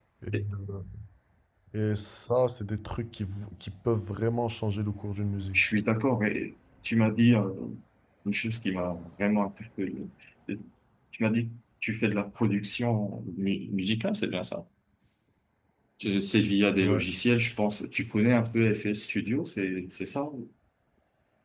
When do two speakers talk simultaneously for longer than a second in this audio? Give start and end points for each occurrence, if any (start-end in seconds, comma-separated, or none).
none